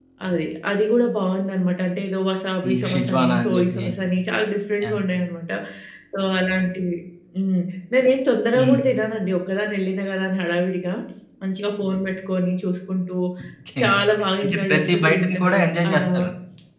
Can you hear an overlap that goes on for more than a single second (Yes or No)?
Yes